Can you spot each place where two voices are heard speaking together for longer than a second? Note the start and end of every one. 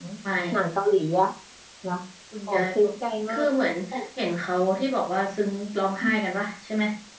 none

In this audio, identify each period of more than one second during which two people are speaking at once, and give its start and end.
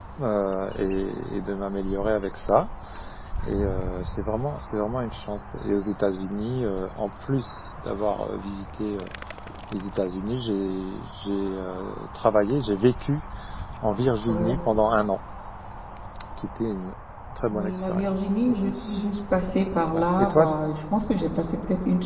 17.5-19.0

